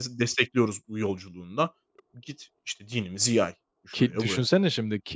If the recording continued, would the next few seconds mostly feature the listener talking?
Yes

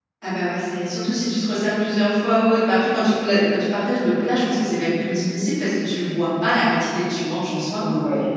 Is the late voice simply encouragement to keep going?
No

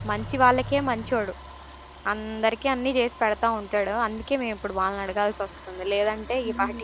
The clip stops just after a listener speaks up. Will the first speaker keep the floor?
No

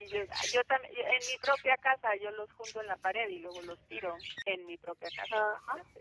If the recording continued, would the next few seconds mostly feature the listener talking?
Yes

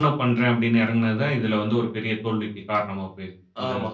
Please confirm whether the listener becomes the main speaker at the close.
Yes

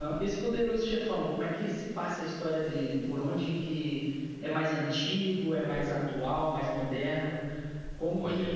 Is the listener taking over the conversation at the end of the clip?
No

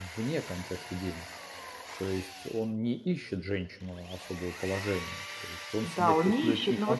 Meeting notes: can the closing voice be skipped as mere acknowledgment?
No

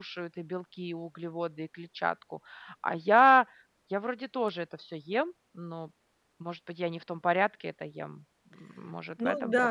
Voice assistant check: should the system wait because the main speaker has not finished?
No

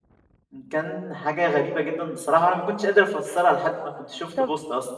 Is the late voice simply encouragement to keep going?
No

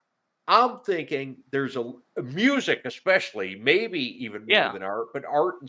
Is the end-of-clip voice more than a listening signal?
No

